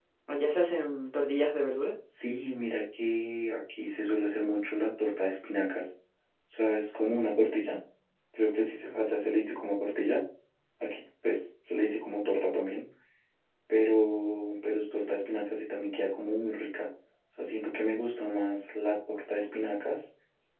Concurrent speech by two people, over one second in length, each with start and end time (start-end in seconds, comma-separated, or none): none